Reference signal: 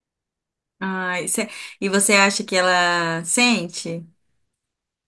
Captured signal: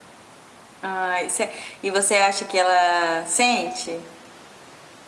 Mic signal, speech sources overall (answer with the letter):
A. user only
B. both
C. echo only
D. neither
C